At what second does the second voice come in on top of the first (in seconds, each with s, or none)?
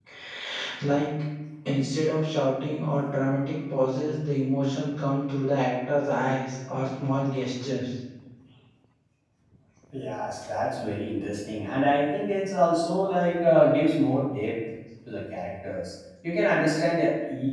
none